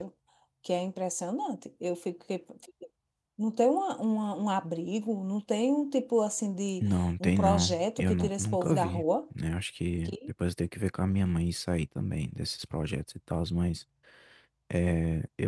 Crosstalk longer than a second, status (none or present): present